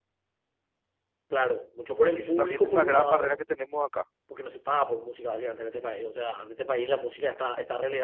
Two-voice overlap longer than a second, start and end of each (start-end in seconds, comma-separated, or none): 2.2-3.4